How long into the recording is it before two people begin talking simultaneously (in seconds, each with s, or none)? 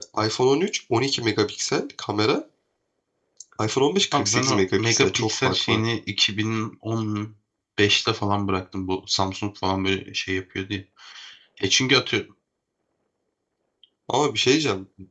4.1 s